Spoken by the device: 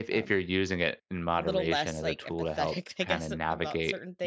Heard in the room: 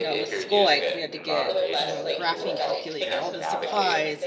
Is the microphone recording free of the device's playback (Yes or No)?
No